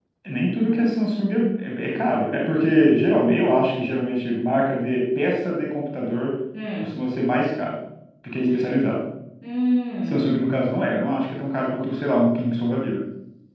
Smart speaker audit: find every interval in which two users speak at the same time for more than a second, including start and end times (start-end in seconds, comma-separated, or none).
none